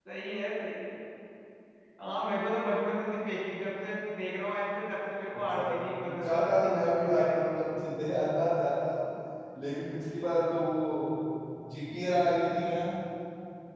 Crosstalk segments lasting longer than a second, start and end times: 6.2-7.5

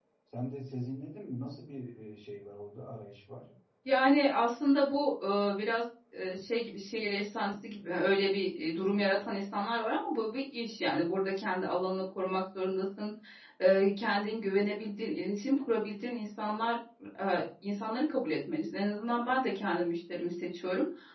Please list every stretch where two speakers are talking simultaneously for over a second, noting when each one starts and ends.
none

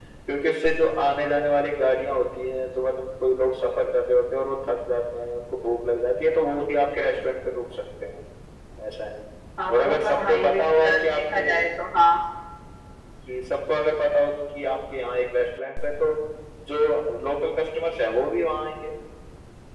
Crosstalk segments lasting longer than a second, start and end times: 9.7-11.5

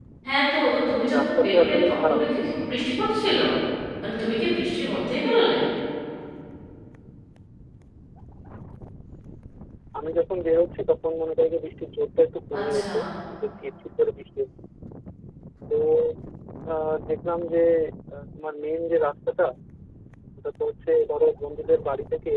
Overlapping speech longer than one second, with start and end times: 1.2-2.5

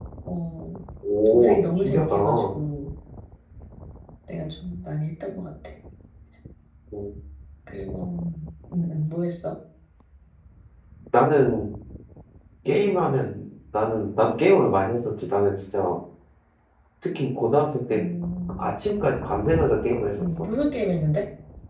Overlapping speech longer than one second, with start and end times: 1.3-2.6

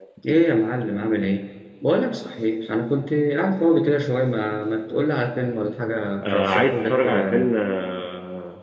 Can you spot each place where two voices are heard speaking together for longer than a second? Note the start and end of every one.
6.2-7.5

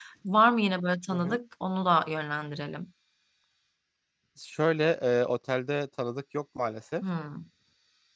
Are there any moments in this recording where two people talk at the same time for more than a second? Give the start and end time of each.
none

